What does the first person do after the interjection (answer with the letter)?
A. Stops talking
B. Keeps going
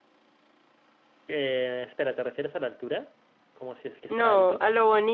A